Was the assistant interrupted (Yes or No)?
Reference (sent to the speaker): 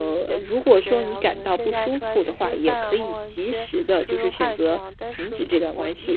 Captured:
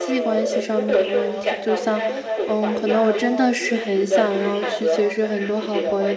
Yes